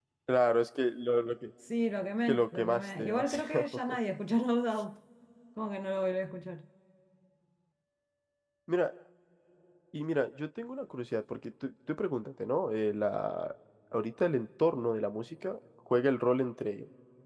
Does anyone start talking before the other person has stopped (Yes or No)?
Yes